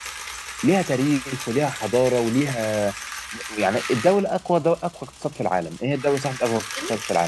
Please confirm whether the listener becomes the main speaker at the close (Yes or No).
No